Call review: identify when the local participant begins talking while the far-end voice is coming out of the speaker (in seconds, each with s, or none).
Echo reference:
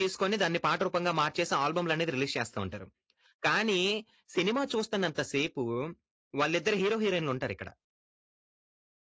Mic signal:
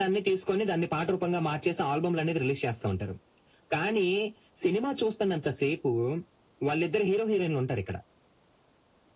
none